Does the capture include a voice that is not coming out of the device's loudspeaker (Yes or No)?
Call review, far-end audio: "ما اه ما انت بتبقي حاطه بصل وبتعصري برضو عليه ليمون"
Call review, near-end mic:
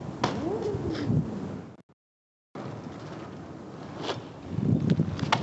No